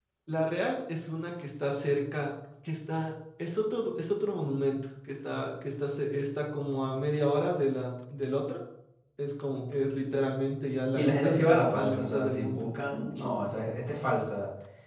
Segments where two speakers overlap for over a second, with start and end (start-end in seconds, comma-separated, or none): 10.9-12.6